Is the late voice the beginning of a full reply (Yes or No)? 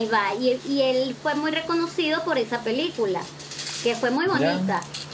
No